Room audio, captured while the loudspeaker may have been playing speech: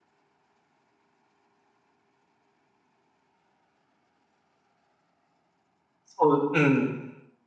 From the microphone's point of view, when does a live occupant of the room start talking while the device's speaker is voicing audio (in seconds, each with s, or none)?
6.2 s